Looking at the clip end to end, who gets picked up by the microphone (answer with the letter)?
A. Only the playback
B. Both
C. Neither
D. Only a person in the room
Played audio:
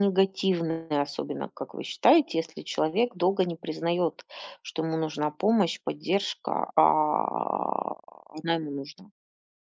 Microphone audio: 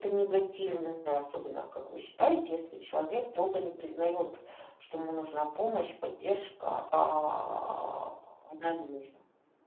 A